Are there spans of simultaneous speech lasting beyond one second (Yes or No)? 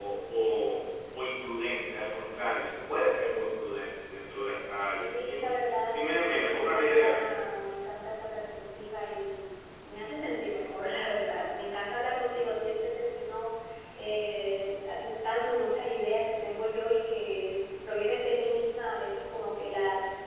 Yes